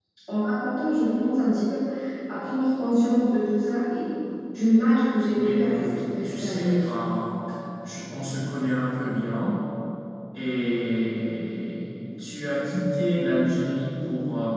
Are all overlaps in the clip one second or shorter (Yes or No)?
No